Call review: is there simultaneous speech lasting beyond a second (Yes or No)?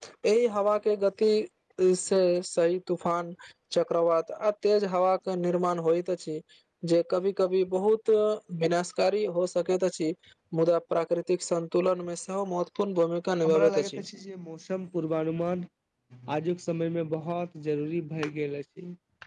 No